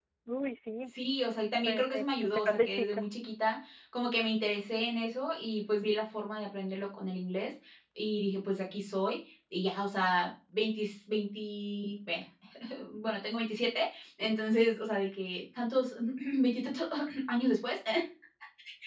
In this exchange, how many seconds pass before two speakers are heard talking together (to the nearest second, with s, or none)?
2 s